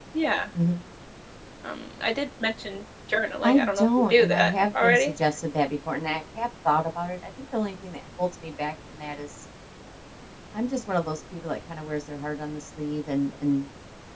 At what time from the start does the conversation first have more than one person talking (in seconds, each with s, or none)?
3.4 s